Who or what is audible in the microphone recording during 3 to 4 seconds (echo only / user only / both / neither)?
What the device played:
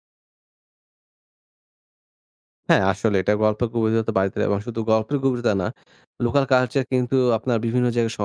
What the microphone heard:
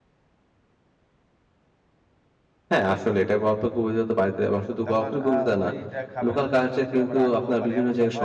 echo only